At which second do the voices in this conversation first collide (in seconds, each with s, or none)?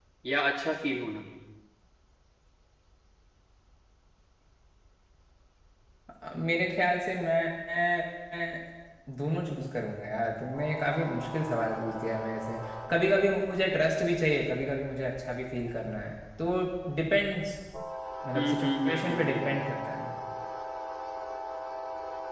18.4 s